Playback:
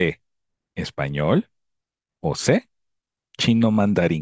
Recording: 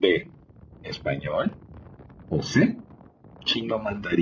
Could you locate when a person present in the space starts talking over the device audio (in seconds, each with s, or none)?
none